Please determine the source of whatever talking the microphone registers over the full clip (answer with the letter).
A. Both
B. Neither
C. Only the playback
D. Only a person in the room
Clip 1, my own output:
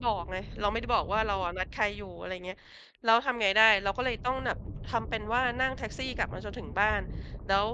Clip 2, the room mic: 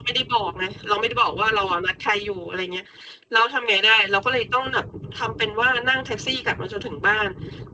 C